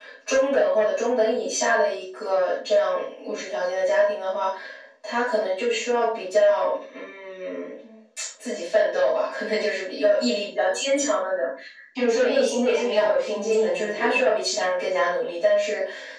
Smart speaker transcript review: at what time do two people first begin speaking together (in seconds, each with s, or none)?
12.1 s